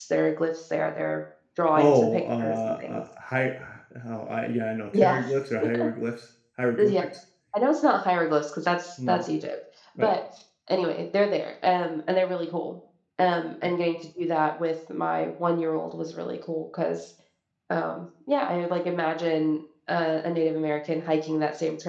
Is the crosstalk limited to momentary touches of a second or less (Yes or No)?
No